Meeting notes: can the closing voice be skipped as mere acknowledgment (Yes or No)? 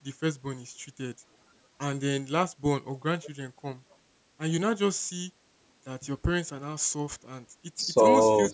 Yes